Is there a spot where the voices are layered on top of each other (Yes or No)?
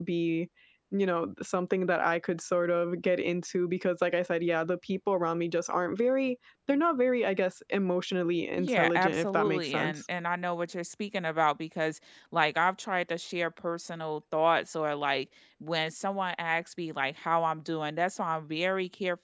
Yes